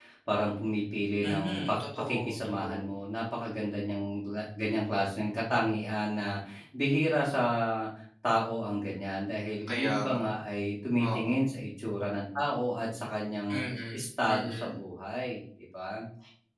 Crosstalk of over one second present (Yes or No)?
Yes